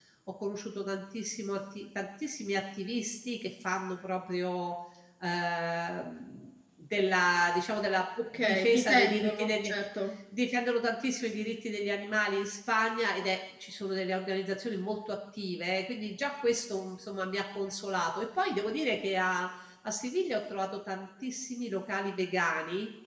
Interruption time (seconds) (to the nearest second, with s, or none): 8 s